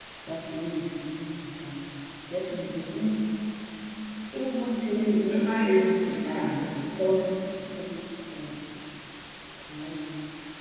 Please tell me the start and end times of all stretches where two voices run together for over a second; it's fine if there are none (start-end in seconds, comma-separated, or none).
4.9-6.6